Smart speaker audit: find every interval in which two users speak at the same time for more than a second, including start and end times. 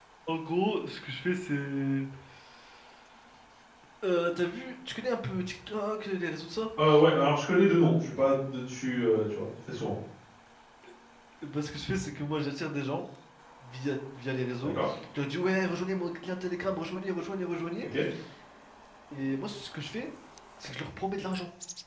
none

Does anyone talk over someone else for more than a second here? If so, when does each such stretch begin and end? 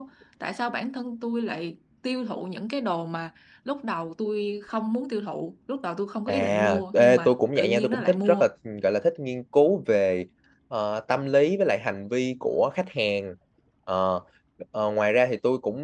6.3-8.4

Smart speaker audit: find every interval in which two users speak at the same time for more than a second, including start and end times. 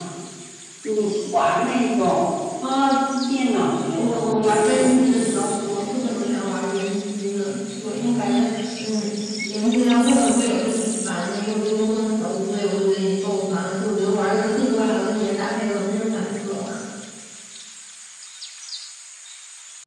4.0-6.1

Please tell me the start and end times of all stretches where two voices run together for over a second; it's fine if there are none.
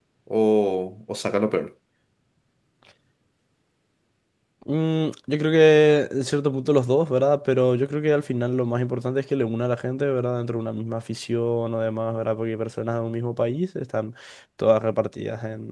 none

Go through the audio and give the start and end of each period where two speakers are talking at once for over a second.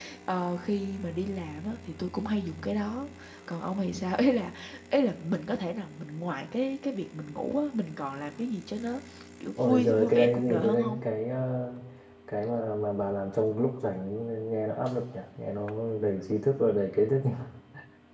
9.7-11.0

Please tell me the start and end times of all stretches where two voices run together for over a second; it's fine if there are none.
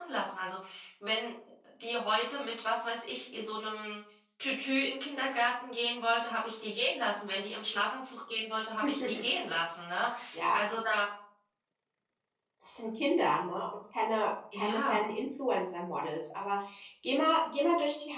none

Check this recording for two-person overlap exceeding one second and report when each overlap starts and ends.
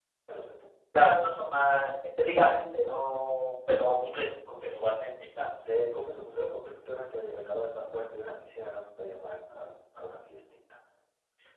none

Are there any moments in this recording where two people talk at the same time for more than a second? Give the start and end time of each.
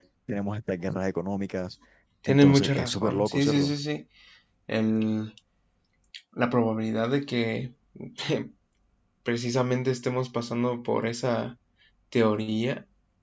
2.3-3.7

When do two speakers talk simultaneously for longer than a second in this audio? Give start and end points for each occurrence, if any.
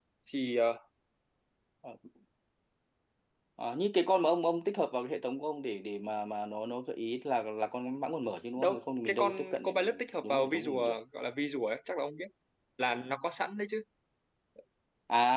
8.6-11.0

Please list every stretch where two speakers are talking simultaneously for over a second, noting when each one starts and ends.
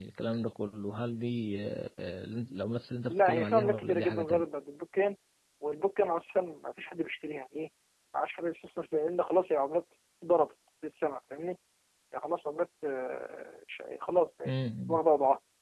3.1-4.4

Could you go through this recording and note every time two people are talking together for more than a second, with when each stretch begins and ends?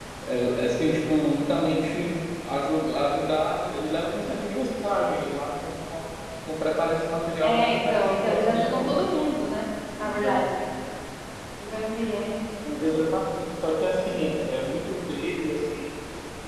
7.4-9.0

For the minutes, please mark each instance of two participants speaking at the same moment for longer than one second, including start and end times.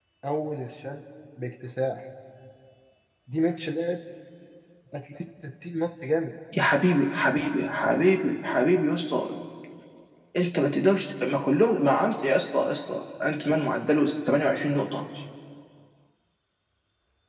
none

